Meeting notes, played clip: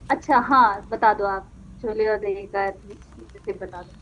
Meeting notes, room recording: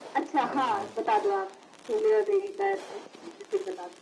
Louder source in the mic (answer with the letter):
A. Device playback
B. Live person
A